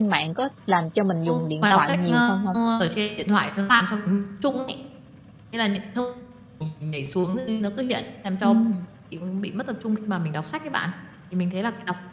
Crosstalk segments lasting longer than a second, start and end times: 1.3-2.6

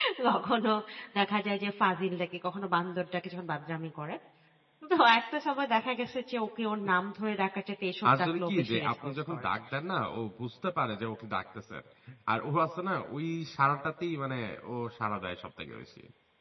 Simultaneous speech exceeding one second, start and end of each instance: 8.2-9.5

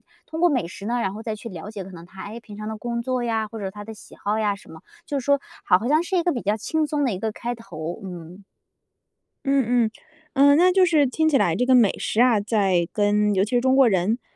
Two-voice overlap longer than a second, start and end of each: none

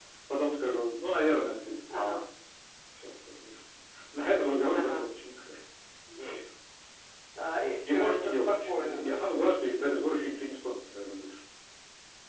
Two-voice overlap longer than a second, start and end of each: 7.8-9.2

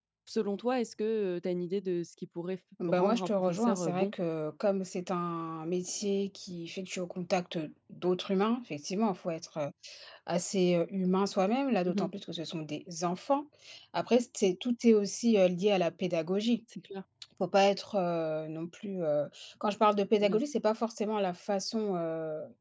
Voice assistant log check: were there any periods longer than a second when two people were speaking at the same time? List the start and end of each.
2.9-4.1

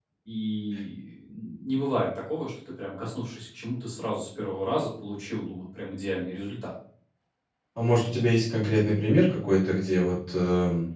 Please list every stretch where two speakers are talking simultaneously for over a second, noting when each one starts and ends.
none

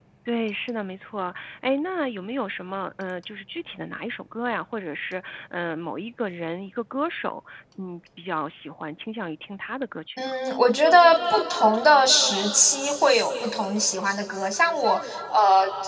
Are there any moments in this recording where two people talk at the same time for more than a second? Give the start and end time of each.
none

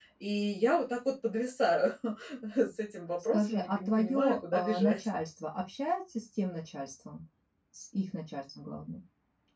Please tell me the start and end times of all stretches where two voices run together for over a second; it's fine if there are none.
3.3-5.1

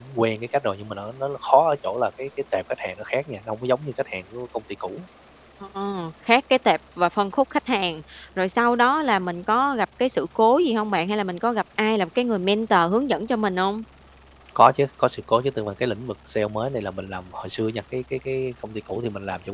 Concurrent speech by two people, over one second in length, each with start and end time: none

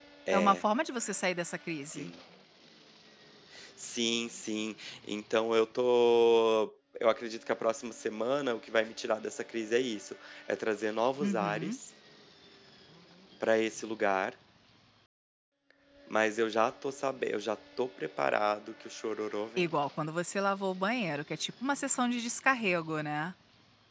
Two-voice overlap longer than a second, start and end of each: none

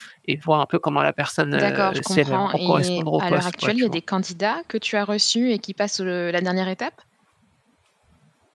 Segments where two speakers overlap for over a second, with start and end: 1.6-4.0

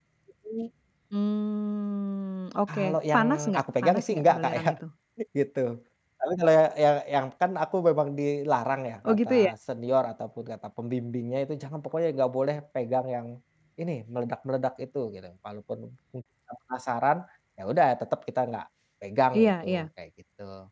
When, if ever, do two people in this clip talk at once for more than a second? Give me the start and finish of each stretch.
2.7-4.7

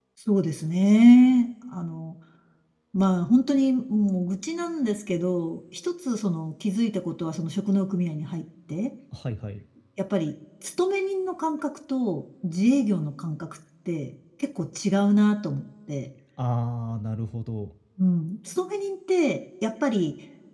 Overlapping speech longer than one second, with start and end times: none

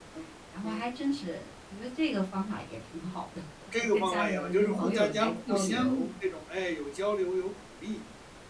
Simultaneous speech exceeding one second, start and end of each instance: 3.9-6.1

